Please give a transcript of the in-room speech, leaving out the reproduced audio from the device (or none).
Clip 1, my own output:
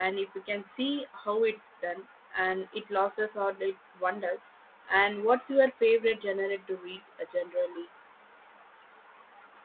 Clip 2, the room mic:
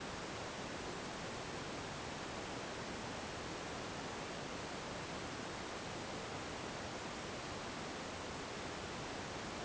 none